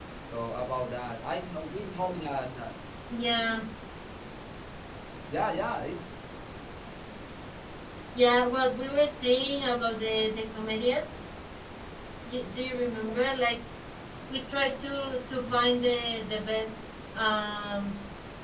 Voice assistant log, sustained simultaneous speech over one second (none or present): none